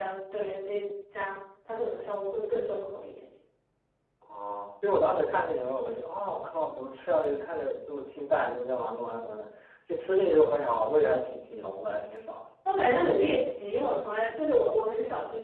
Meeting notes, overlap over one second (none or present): none